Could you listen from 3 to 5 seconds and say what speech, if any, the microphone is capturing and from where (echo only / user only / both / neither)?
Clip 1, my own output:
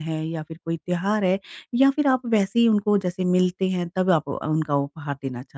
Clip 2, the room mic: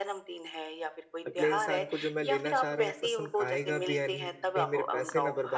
both